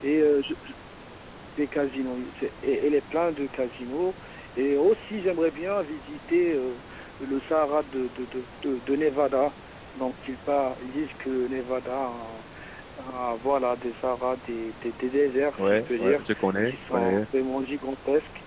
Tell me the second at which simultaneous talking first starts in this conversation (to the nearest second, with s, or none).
16 s